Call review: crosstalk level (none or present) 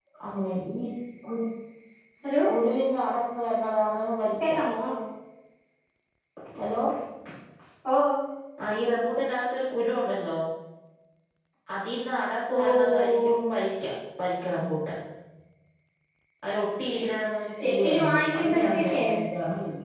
present